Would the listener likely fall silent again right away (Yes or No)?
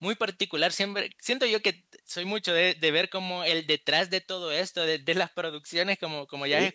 Yes